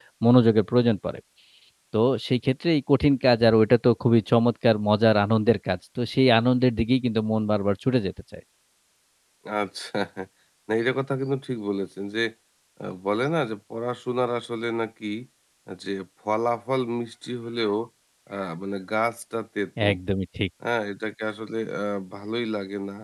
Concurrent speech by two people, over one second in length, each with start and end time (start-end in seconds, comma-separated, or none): none